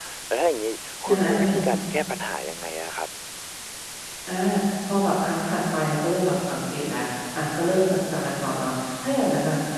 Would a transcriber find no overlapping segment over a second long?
Yes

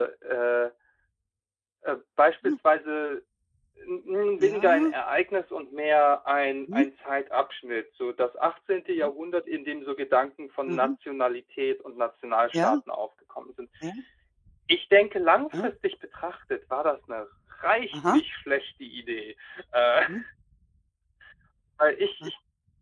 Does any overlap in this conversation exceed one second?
No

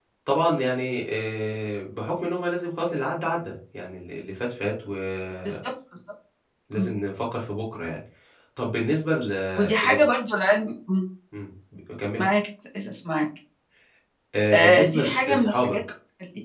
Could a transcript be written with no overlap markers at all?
No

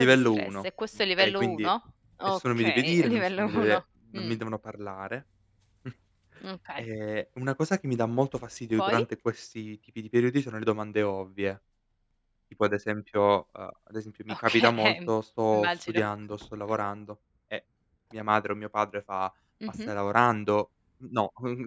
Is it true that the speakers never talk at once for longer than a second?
No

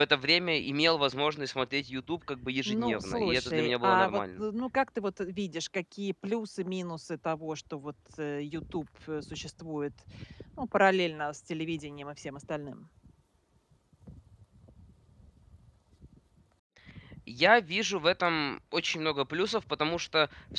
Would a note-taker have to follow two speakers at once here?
Yes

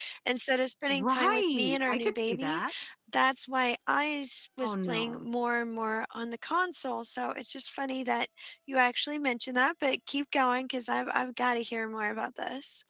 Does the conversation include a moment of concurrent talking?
Yes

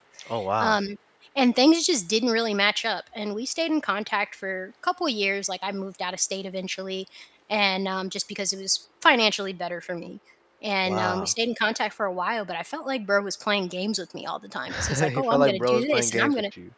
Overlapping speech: Yes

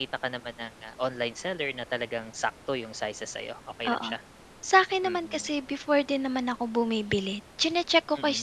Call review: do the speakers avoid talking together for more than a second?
Yes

